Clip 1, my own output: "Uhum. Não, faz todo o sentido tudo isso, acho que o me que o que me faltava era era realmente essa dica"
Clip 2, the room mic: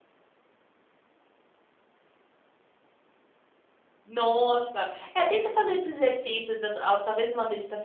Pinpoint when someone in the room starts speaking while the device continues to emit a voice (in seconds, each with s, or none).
4.0 s